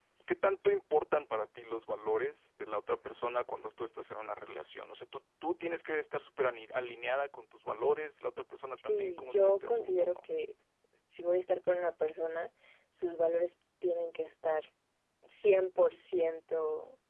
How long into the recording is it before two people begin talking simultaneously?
8.8 s

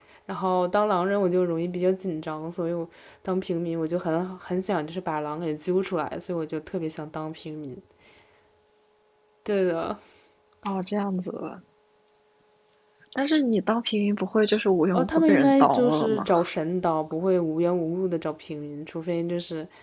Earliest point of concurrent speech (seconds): 14.9 s

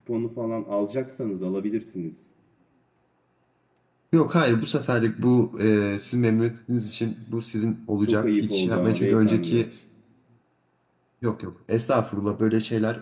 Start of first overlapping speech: 8.1 s

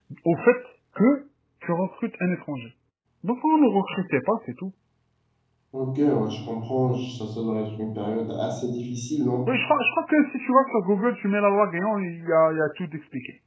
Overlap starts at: none

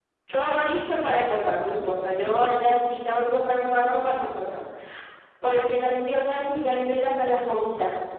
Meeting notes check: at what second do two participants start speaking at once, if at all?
none

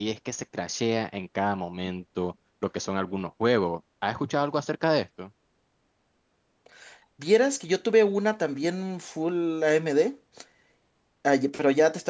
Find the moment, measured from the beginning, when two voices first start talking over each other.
none

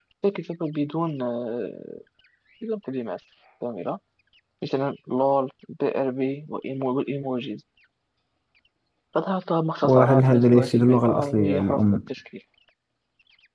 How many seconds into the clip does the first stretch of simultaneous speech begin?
9.8 s

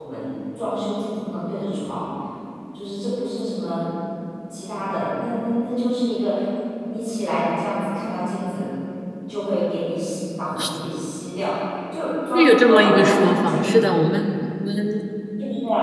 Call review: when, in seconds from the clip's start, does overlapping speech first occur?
12.3 s

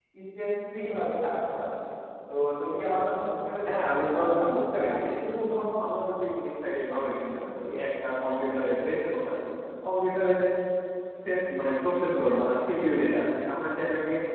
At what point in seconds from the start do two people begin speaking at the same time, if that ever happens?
3.7 s

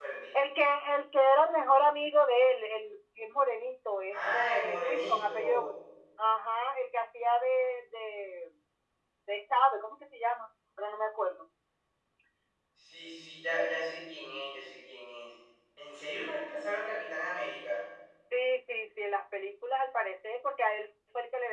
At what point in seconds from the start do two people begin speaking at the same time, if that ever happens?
4.1 s

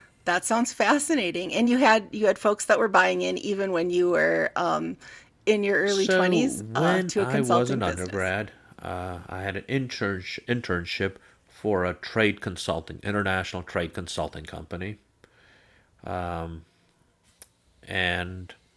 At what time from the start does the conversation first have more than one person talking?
5.9 s

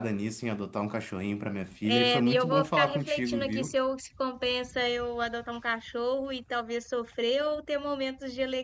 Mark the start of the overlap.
1.8 s

